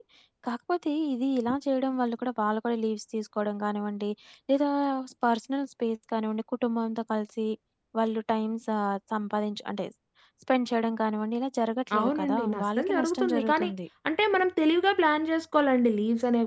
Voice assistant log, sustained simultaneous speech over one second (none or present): present